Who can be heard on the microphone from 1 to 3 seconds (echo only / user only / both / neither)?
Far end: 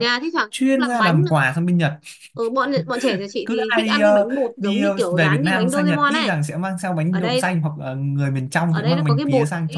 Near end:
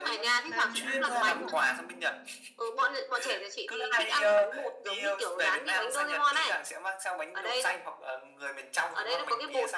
both